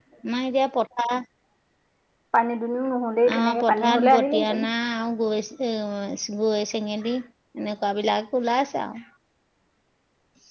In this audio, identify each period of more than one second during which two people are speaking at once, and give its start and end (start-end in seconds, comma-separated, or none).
3.3-4.6